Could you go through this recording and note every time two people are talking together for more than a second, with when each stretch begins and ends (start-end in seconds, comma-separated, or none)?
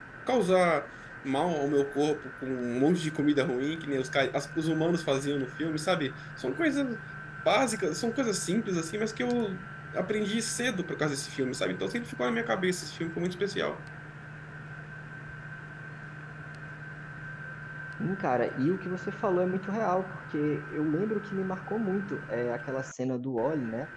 none